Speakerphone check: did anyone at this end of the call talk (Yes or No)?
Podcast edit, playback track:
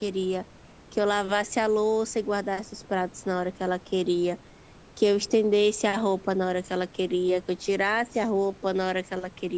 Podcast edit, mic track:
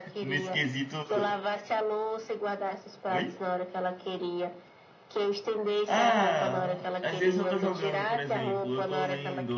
Yes